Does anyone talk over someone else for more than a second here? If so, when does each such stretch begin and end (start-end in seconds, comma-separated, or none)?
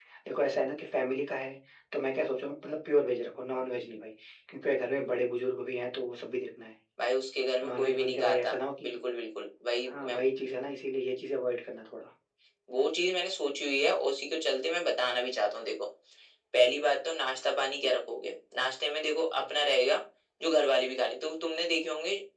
7.6-8.9